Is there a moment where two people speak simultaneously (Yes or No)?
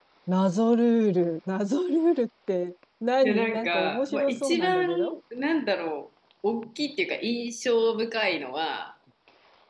Yes